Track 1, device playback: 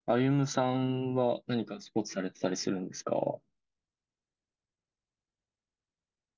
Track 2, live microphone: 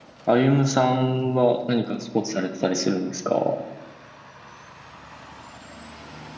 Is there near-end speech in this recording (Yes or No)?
No